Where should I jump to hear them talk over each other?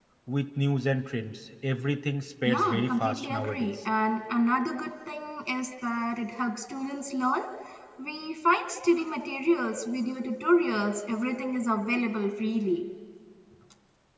2 s

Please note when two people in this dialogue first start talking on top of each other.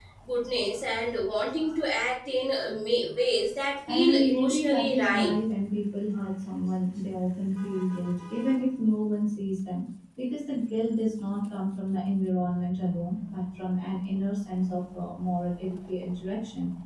4 s

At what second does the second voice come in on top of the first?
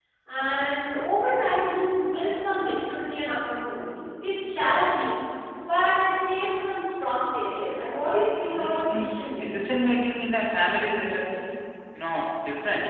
8 s

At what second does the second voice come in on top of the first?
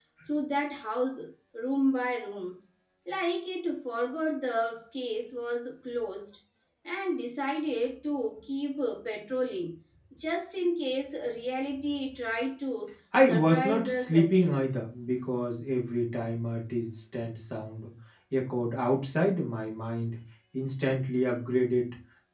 13 s

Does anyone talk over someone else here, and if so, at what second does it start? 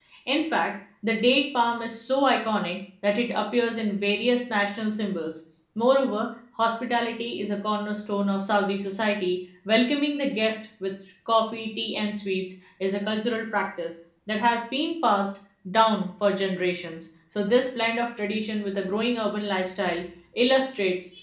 none

